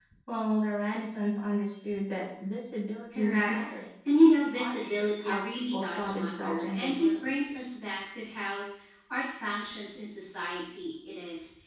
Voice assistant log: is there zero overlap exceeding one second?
No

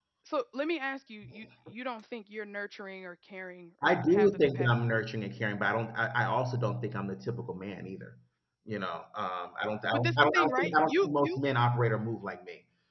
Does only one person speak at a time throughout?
No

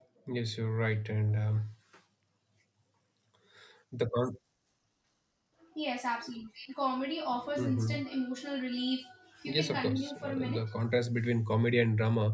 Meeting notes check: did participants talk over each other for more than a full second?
Yes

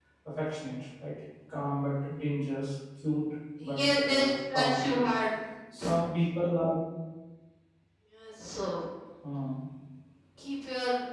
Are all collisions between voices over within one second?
No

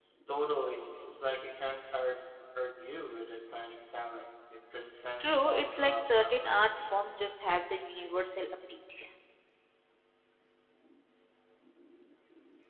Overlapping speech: Yes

